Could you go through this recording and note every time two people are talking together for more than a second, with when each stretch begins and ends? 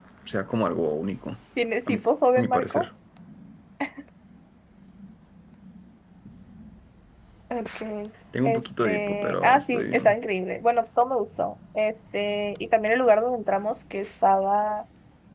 8.4-10.2

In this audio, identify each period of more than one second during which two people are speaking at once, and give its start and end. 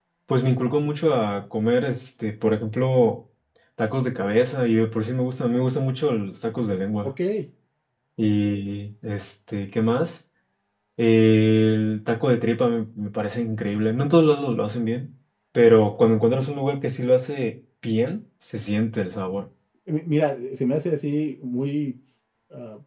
none

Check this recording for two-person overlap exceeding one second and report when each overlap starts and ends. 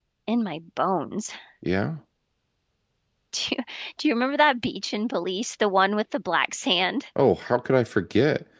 none

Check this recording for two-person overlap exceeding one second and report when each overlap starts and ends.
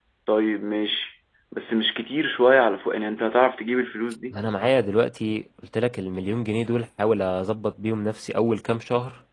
none

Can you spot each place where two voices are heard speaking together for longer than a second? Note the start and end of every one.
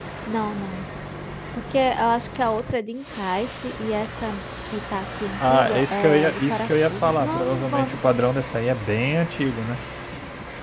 5.5-8.2

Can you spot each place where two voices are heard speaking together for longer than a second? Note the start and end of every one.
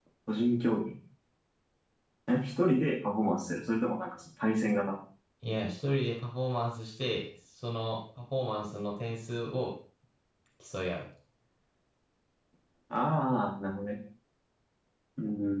none

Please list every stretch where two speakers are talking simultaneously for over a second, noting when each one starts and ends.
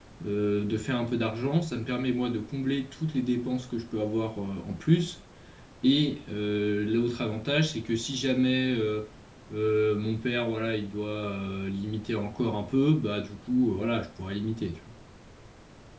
none

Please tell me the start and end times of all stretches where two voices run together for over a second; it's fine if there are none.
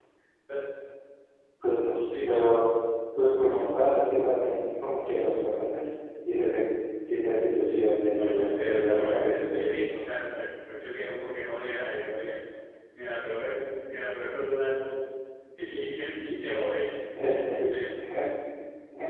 8.1-9.6

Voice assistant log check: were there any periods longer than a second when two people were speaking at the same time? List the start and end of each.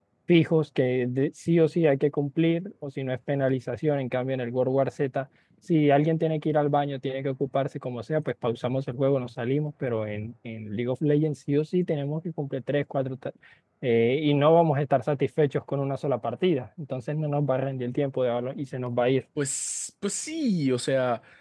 none

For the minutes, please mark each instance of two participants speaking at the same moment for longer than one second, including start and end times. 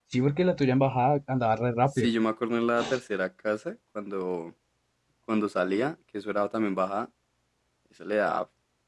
none

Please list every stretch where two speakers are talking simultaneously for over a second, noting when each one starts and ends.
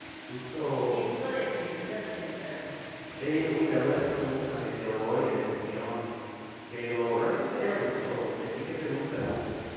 none

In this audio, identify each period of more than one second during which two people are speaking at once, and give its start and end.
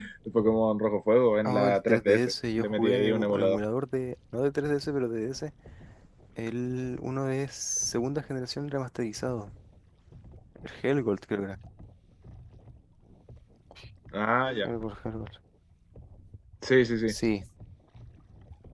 1.4-3.6

